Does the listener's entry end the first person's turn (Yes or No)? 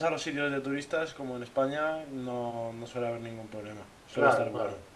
Yes